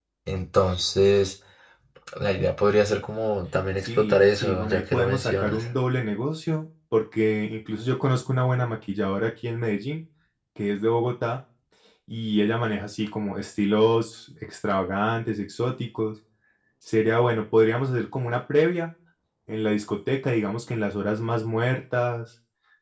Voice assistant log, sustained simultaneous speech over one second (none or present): present